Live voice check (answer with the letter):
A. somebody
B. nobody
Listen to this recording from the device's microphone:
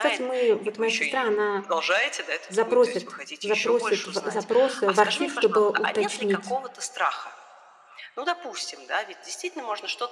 A